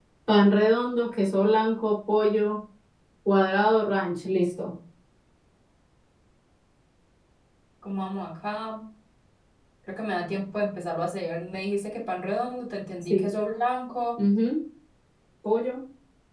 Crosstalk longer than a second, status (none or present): none